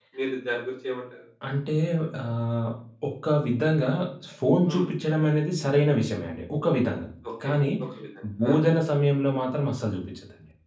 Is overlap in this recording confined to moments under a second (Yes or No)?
Yes